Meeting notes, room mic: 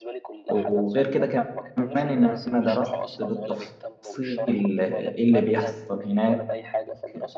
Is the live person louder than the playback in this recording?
Yes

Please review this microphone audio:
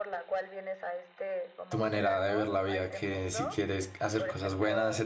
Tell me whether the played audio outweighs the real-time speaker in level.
No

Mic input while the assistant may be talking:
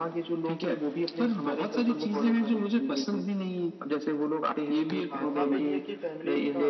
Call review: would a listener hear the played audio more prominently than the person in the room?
Yes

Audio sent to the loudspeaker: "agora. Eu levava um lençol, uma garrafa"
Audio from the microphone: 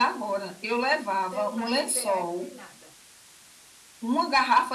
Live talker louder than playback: No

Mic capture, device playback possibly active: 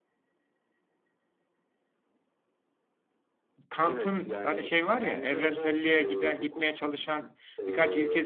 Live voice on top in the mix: Yes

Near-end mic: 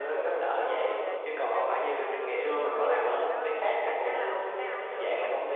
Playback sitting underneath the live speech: No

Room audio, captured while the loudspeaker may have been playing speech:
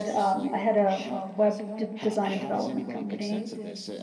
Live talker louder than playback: Yes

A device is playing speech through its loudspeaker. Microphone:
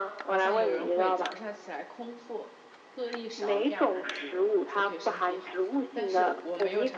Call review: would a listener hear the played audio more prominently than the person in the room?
Yes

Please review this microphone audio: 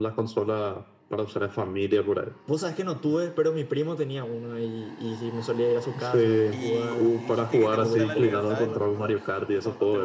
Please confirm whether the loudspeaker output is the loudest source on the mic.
Yes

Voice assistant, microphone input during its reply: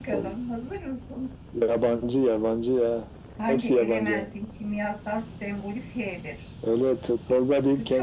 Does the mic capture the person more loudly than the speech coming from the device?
No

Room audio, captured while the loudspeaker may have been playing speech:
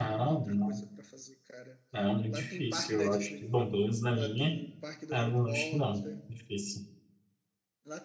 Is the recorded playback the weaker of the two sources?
Yes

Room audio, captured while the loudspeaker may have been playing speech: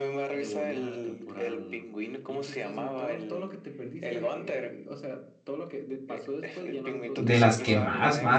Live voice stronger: Yes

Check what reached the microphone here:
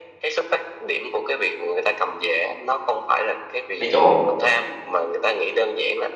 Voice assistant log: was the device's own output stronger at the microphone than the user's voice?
No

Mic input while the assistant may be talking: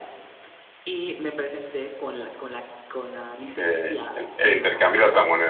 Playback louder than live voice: No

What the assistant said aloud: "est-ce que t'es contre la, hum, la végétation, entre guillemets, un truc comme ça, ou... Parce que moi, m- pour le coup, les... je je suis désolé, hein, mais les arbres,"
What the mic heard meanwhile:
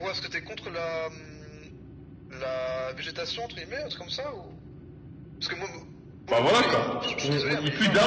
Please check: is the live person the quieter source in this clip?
No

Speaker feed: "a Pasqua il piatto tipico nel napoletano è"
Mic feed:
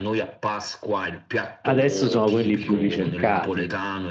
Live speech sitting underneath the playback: No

